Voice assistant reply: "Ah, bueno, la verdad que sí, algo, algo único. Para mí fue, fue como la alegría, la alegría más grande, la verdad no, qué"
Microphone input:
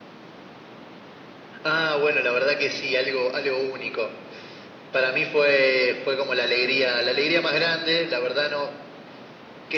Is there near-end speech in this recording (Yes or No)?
No